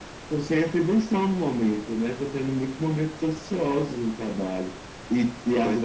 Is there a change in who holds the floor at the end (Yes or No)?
No